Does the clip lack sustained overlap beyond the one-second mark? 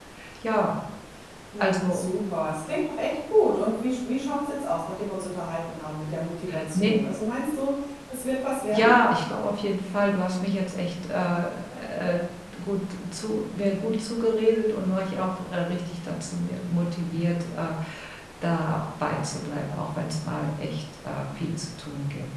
Yes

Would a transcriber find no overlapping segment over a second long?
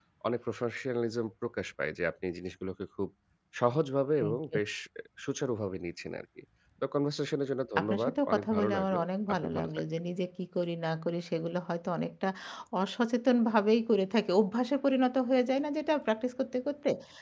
No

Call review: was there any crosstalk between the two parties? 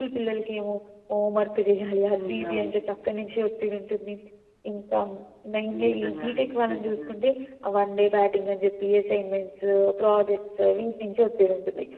Yes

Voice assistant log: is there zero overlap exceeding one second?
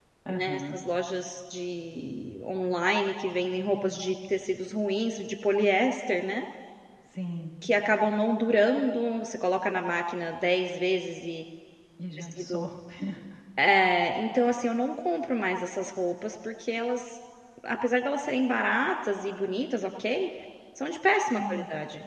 Yes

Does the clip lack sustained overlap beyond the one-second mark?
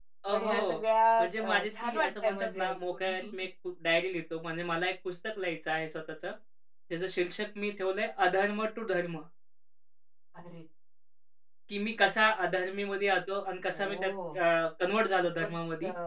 No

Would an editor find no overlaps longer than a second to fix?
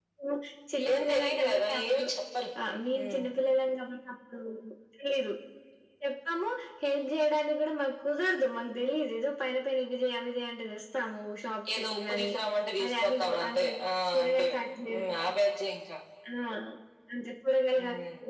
No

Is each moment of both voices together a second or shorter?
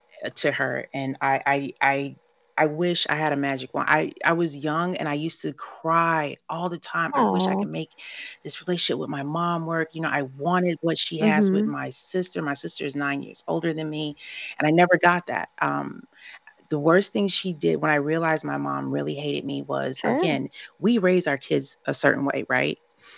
Yes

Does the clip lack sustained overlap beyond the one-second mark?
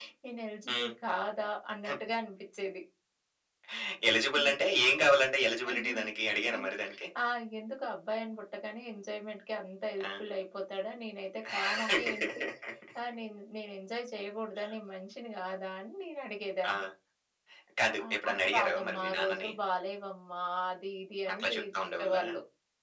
No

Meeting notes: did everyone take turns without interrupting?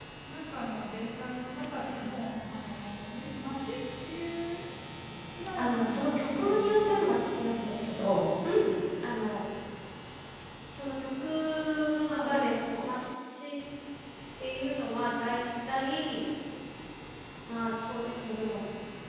No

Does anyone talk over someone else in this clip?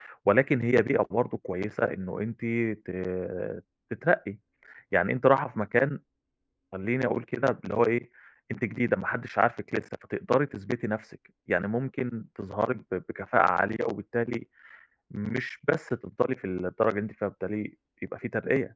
No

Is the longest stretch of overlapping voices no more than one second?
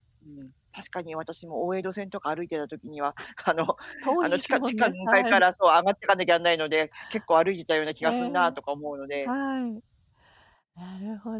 No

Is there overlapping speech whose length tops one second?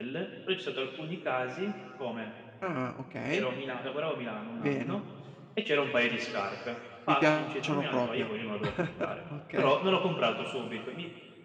Yes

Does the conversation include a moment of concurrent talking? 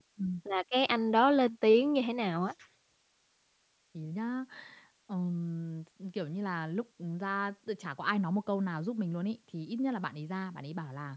No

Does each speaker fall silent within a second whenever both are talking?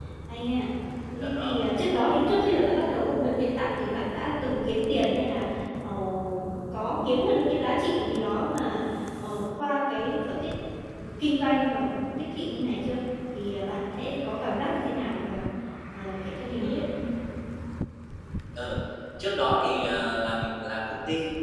Yes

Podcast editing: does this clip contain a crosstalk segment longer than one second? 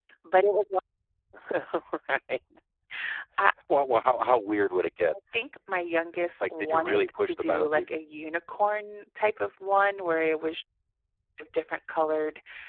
Yes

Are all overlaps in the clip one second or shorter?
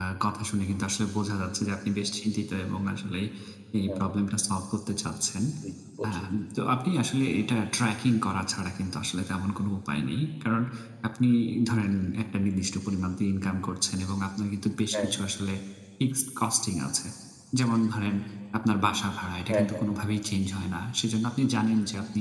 Yes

